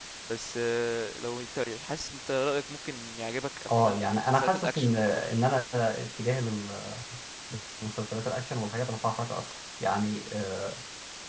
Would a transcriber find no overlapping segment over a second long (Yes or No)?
No